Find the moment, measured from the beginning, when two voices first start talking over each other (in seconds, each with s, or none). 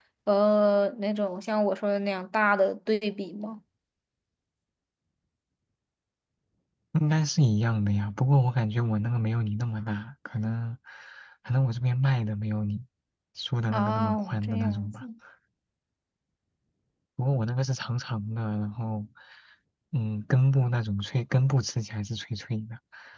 13.7 s